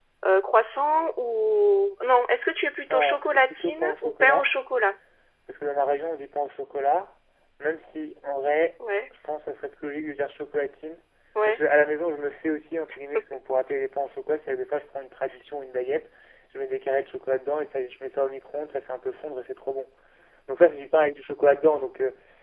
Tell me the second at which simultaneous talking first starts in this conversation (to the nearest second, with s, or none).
3 s